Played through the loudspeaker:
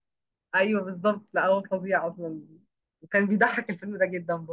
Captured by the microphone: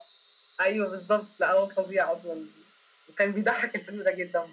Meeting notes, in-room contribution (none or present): none